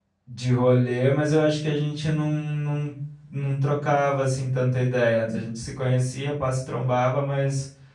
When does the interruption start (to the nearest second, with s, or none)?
none